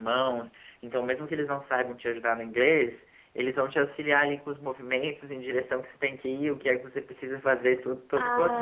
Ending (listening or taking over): taking over